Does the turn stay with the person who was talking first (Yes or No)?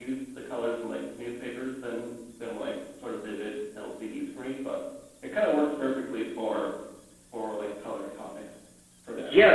No